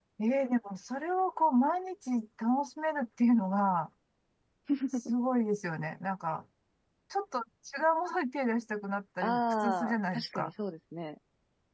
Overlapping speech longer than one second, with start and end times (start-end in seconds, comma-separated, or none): 9.2-10.5